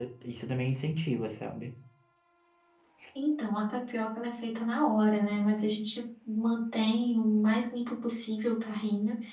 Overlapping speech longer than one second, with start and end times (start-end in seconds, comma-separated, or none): none